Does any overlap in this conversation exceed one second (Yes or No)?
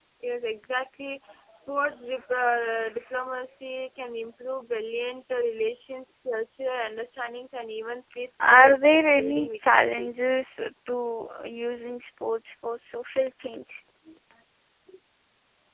Yes